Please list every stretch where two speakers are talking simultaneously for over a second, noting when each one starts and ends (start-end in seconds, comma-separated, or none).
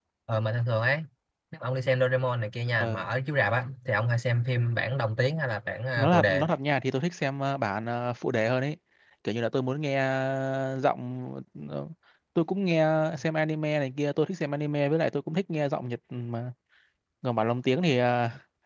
none